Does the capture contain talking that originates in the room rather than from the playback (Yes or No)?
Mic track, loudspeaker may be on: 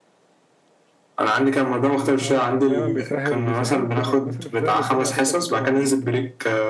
Yes